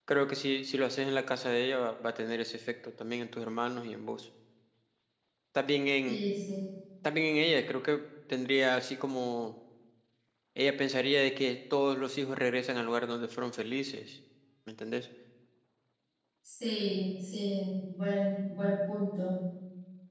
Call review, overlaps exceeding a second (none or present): none